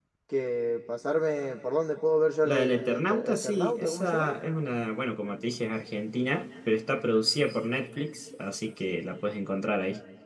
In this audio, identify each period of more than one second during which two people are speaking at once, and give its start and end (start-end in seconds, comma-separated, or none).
2.4-4.3